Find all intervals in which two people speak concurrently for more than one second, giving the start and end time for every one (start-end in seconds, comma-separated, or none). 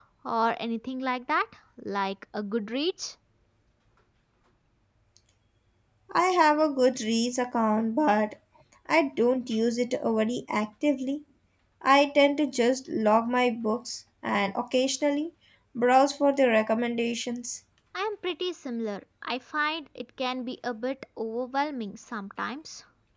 none